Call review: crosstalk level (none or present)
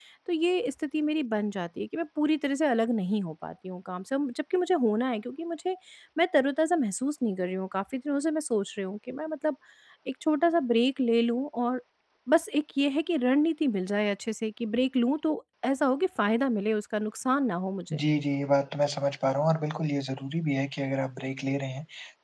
none